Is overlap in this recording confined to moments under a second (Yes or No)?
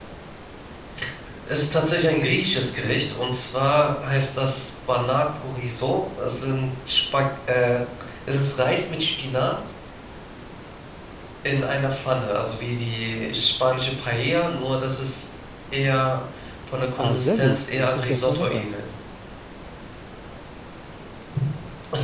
No